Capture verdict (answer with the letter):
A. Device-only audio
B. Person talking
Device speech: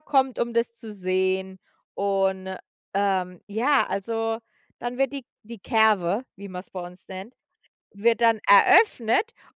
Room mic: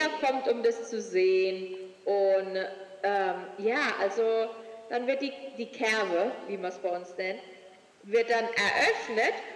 A